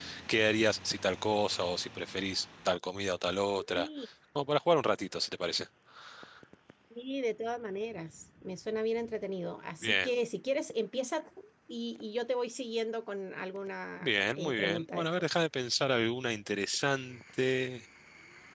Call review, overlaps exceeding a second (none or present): present